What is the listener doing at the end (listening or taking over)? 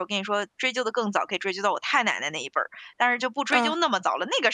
listening